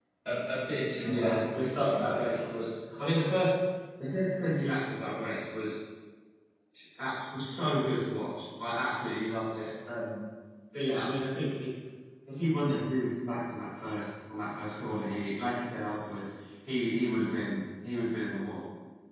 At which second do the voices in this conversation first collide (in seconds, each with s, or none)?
1.1 s